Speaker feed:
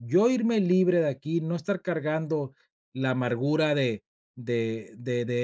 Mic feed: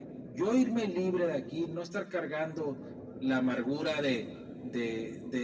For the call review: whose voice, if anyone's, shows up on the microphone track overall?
echo only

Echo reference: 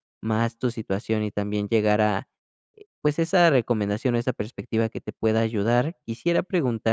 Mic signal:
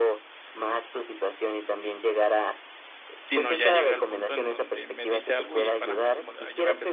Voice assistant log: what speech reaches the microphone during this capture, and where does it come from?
both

